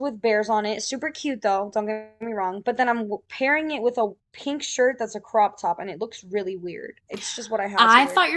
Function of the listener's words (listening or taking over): taking over